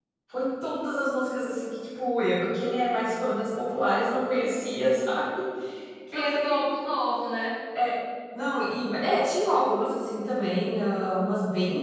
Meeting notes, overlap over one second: none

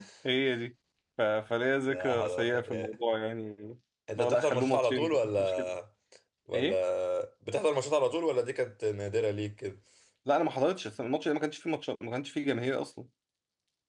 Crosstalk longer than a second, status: present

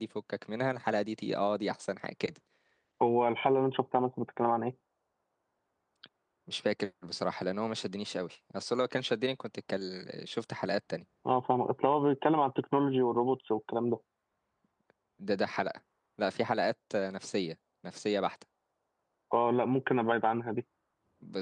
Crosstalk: none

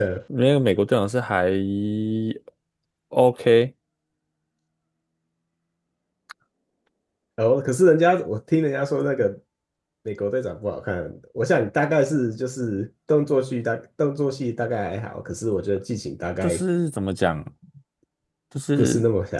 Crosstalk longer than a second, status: none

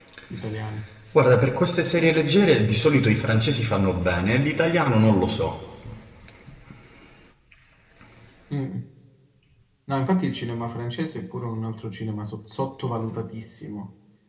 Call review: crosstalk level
none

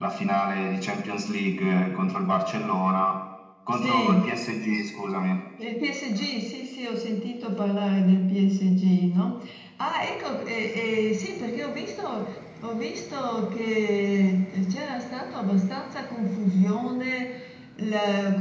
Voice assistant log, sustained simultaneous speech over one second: none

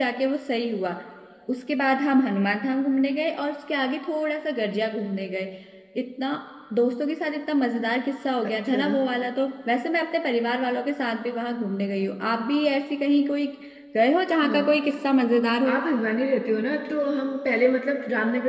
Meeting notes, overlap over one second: none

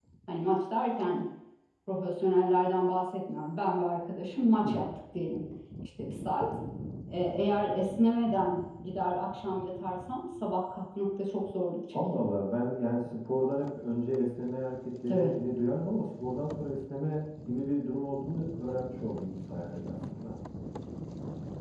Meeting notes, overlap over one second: none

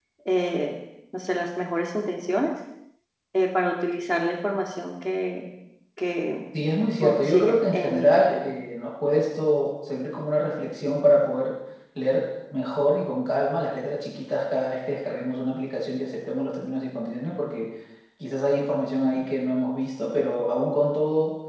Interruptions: present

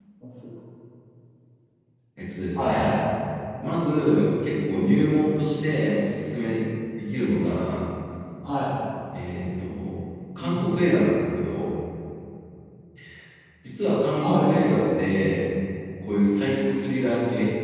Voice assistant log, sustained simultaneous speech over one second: none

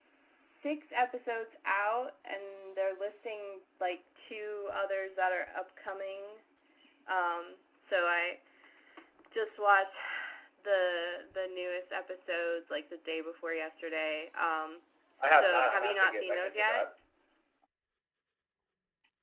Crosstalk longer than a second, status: present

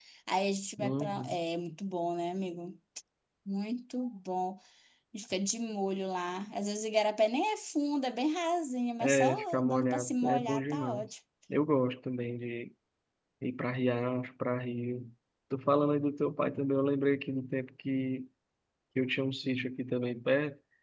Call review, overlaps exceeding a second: present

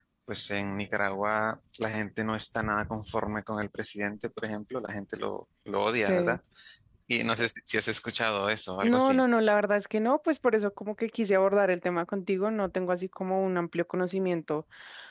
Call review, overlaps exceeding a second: none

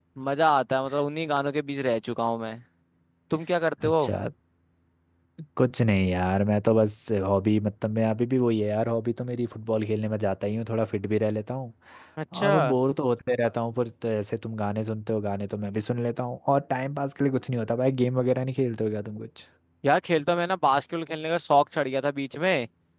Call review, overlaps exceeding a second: none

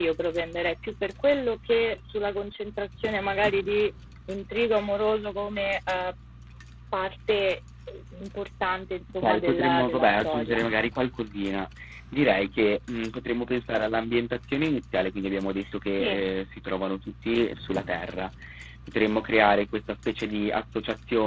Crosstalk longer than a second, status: present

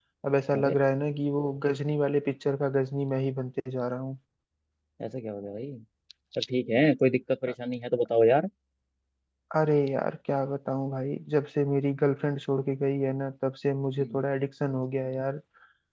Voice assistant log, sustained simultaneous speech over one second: none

